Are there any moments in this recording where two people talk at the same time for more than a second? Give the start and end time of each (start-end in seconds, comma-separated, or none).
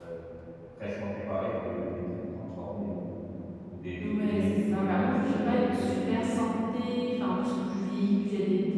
4.1-6.2